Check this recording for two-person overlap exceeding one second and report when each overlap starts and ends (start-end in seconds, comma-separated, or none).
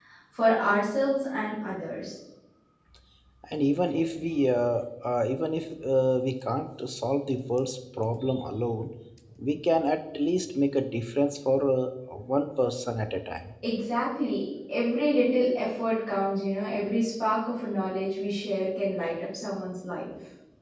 none